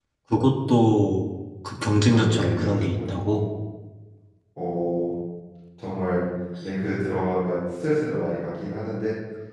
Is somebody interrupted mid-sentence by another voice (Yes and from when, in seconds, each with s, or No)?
Yes, from 1.8 s